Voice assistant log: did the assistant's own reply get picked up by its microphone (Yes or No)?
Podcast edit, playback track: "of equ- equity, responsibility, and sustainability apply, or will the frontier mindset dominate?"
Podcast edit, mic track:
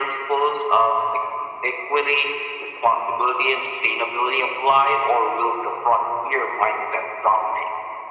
Yes